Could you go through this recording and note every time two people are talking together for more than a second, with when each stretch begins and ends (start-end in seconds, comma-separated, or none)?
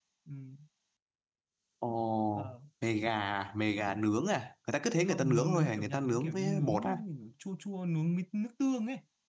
5.1-7.0